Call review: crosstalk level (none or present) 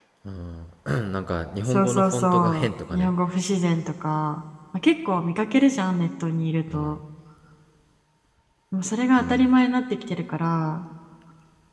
present